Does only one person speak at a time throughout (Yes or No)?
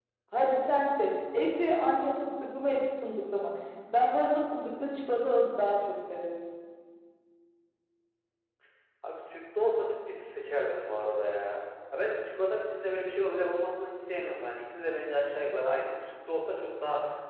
Yes